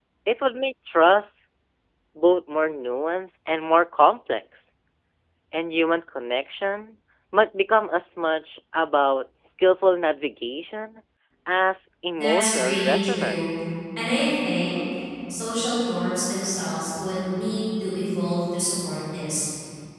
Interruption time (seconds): 12.2 s

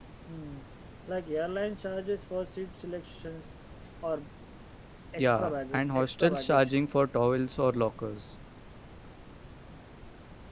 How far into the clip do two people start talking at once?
5.2 s

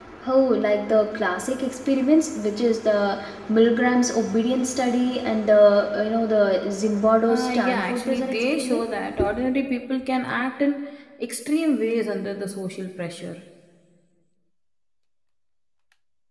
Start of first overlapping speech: 7.3 s

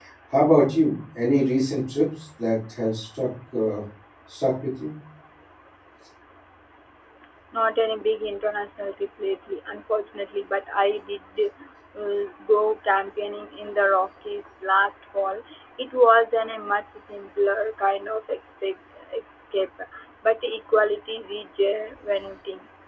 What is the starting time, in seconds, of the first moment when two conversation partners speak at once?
none

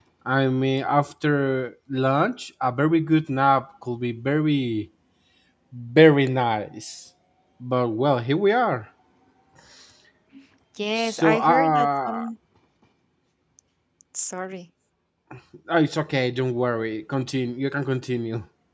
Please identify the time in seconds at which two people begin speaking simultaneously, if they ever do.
10.9 s

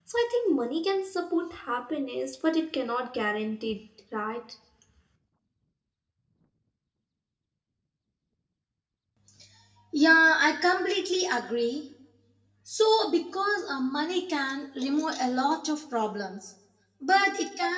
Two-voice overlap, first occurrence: none

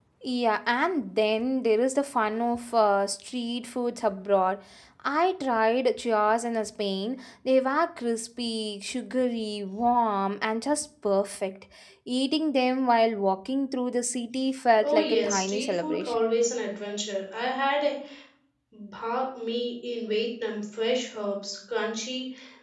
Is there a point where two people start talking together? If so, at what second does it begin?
14.8 s

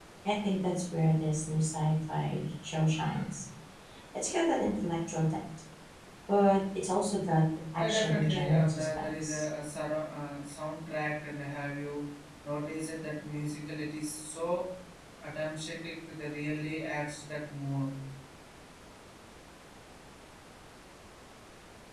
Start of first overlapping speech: 7.8 s

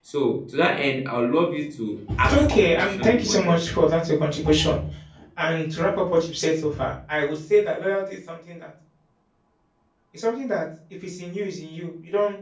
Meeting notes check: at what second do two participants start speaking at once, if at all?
2.1 s

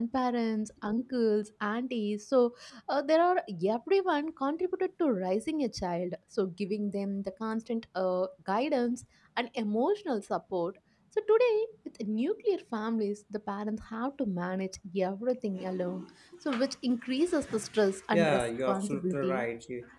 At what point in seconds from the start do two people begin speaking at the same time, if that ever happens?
18.1 s

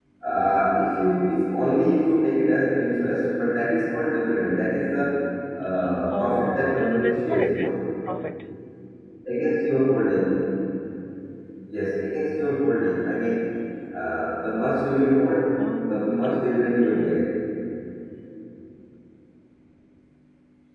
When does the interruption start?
6.2 s

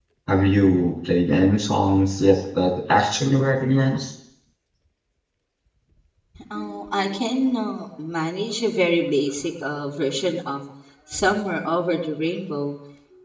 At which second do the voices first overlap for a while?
none

